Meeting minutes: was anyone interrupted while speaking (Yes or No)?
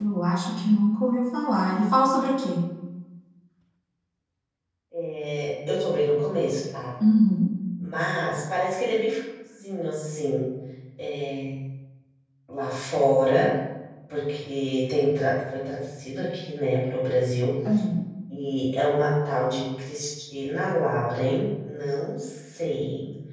No